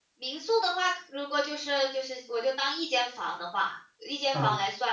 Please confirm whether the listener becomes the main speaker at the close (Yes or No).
No